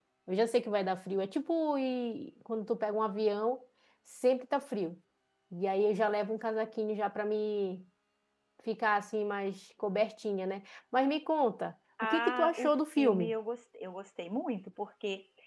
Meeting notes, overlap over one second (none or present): present